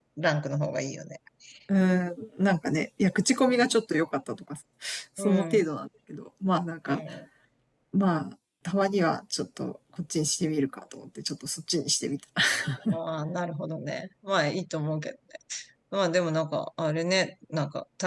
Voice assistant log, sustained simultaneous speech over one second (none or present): none